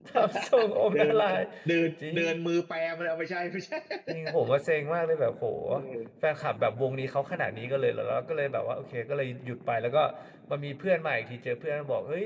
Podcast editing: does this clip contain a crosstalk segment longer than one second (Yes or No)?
No